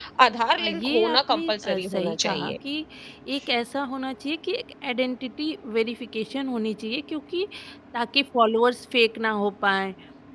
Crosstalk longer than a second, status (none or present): present